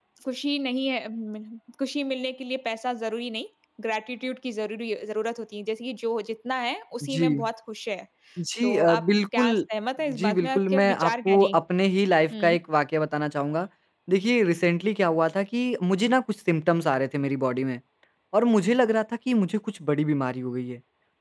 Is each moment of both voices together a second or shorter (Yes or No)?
No